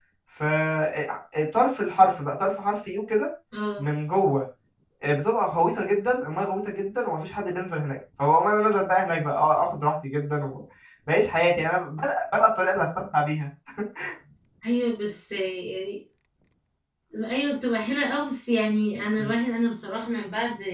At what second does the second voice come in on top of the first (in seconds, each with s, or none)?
none